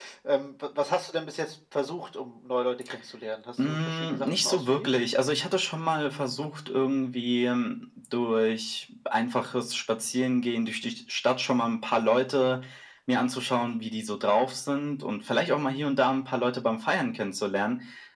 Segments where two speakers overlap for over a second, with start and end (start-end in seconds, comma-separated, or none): 3.6-4.9